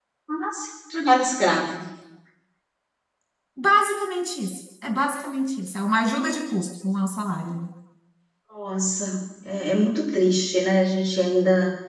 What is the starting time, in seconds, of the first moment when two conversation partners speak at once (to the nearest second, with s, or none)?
none